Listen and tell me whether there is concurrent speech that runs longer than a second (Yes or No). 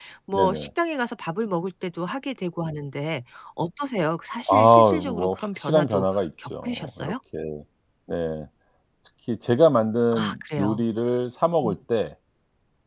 Yes